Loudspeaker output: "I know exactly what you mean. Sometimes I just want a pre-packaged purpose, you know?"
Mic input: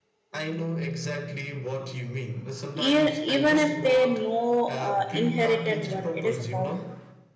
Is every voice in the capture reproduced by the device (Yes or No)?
No